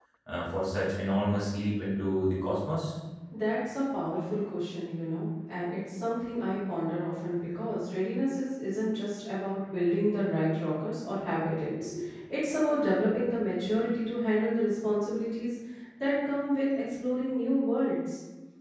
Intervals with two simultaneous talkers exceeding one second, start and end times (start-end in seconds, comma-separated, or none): none